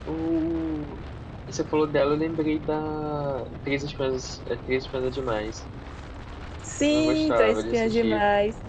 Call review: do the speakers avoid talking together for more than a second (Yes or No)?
No